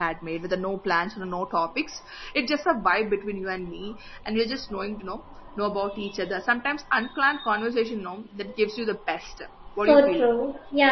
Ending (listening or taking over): taking over